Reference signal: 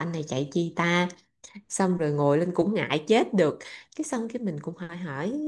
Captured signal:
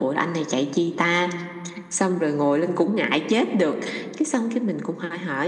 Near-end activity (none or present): none